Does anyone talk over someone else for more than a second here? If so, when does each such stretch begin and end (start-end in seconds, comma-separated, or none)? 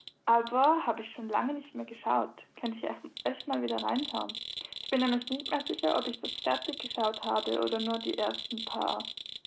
none